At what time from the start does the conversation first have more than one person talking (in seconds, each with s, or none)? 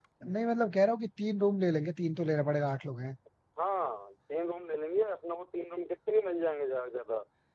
none